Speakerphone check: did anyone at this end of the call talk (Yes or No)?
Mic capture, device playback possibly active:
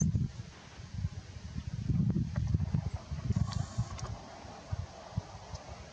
No